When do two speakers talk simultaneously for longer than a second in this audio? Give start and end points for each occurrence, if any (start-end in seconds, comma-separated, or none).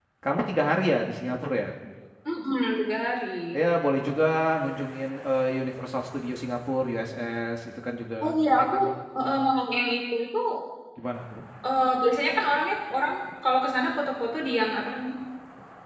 none